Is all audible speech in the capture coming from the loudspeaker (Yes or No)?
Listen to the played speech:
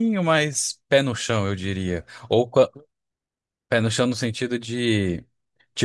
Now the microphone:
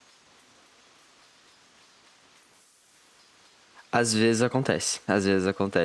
No